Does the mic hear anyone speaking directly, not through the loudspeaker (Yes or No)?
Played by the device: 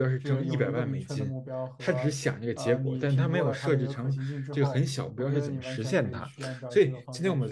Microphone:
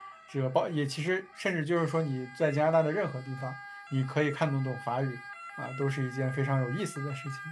Yes